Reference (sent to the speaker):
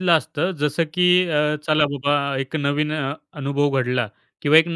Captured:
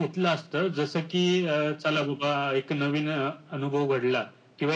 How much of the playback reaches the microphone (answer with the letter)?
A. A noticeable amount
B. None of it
A